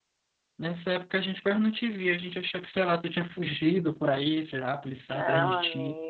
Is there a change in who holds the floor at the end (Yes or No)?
Yes